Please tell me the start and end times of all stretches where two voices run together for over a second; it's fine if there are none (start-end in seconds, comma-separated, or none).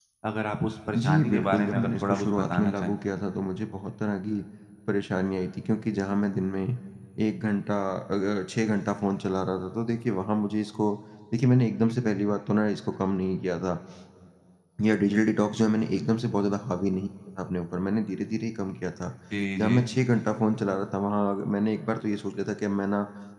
0.9-2.9